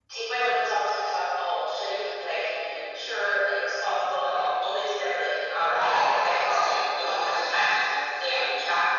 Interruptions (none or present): present